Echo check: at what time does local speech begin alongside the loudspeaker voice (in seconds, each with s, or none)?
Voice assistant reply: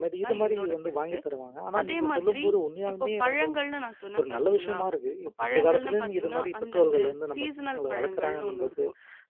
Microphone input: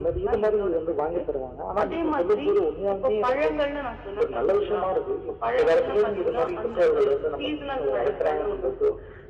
none